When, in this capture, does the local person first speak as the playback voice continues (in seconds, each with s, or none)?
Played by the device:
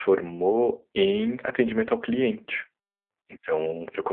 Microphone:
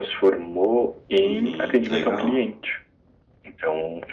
1.2 s